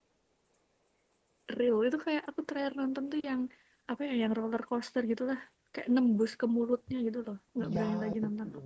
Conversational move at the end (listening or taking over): taking over